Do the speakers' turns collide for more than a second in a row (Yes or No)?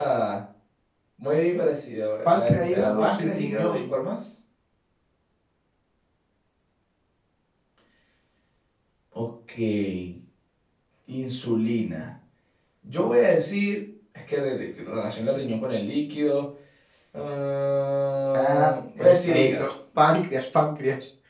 Yes